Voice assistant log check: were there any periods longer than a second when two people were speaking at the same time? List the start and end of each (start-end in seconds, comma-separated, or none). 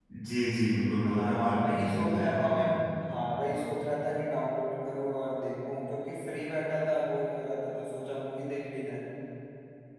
1.2-2.6